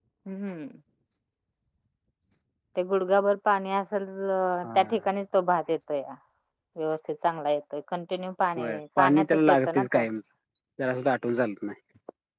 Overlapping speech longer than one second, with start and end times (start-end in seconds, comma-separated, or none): 8.6-10.0